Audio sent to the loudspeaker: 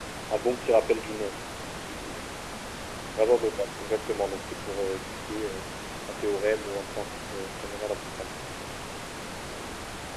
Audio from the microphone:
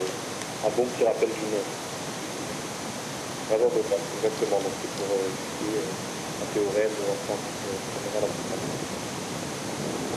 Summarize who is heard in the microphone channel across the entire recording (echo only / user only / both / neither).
echo only